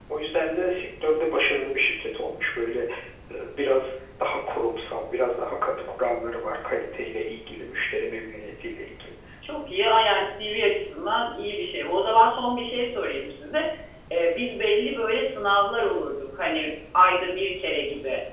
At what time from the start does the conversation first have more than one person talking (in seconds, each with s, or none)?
none